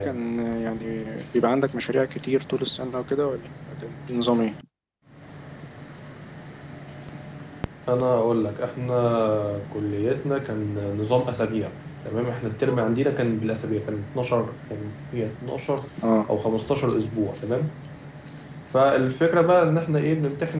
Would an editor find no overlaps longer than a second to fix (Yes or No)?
Yes